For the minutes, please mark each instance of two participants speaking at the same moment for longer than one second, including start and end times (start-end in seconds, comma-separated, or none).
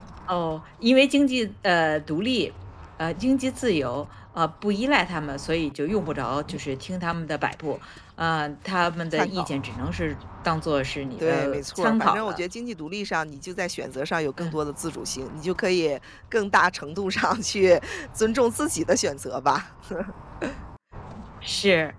11.2-12.4